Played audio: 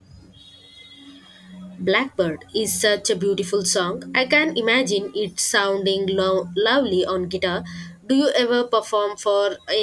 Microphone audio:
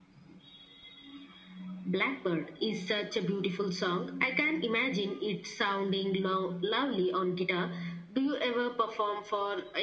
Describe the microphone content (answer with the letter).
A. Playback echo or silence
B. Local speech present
A